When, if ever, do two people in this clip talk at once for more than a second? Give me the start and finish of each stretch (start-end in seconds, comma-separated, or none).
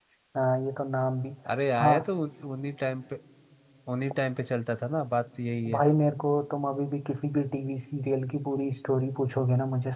none